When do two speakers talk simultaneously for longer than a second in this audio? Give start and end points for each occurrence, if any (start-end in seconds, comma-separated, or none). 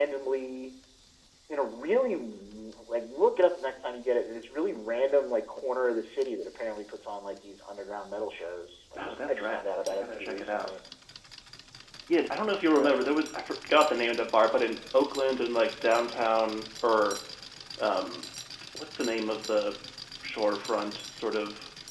9.0-10.7